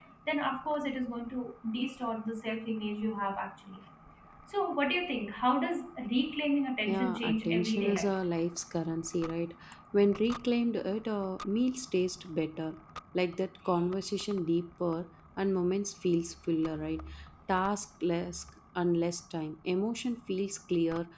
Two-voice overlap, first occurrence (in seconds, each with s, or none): 6.9 s